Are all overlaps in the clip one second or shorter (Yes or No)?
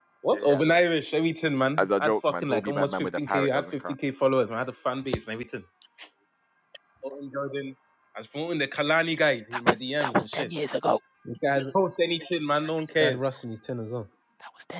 No